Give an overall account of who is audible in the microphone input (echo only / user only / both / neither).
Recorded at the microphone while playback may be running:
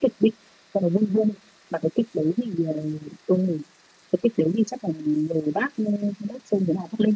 echo only